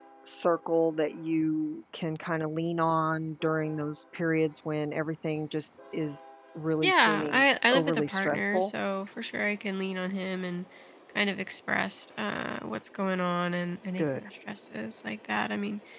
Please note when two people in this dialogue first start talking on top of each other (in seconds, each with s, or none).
6.8 s